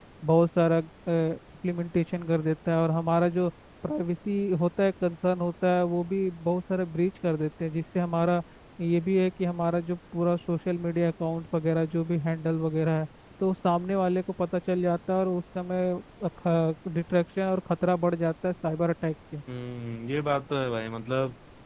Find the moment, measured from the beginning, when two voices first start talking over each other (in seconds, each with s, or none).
none